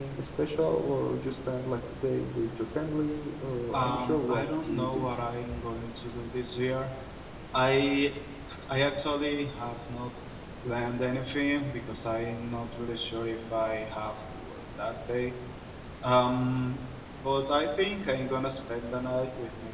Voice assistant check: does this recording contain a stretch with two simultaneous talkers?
Yes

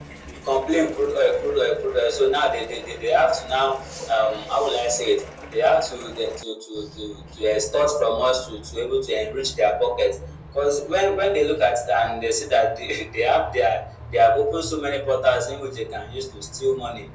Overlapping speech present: No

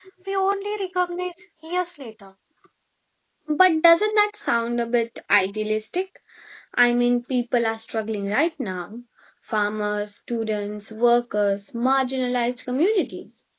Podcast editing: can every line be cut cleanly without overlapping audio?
Yes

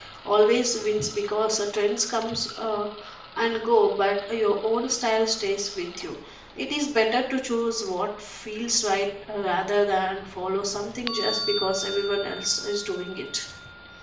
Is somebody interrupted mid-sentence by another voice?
No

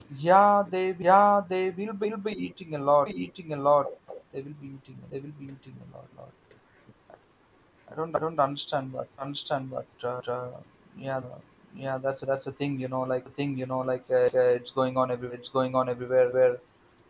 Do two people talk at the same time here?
No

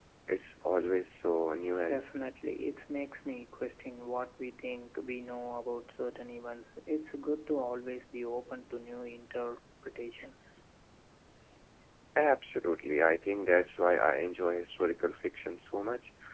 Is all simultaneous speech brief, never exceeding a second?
Yes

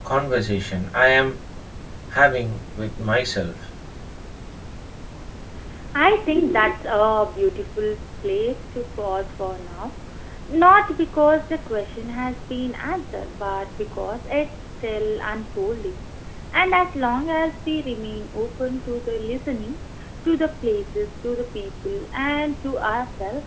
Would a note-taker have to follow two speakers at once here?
No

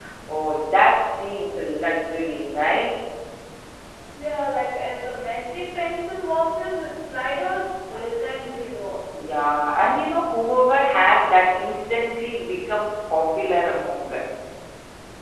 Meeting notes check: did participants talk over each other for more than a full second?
No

